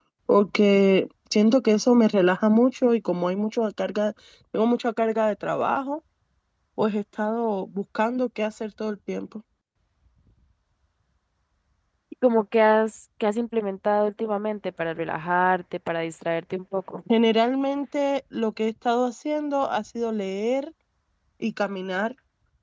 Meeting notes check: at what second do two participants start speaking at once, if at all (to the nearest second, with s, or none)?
none